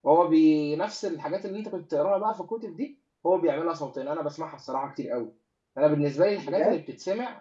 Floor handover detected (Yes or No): No